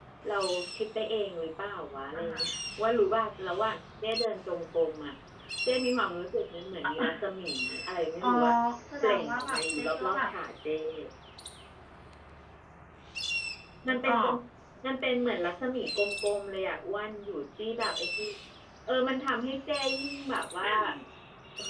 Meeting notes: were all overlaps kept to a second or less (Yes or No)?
No